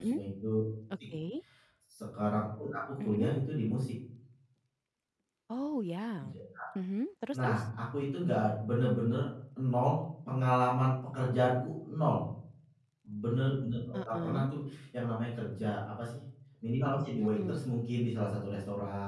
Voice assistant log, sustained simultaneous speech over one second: none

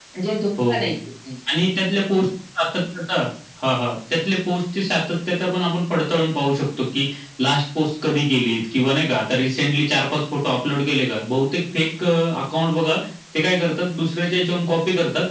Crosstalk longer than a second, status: none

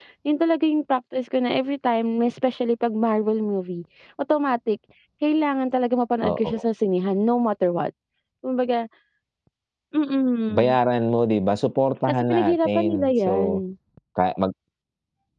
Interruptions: present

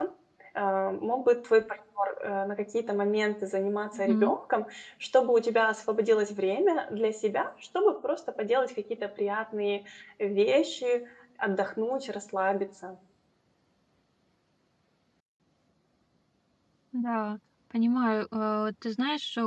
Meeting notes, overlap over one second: none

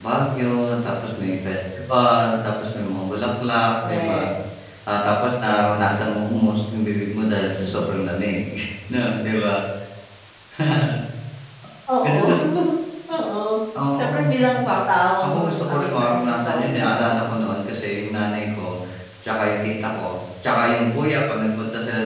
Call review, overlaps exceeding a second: present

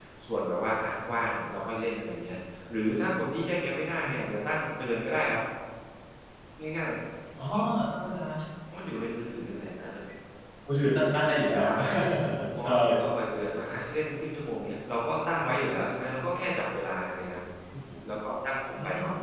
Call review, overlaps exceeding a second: none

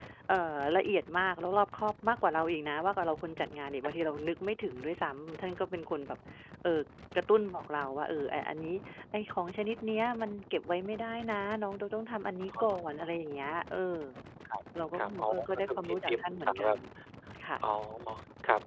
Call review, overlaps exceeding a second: present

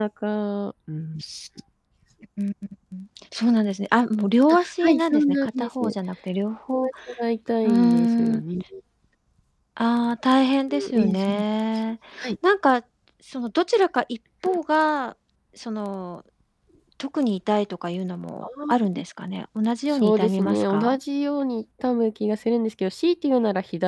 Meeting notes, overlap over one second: present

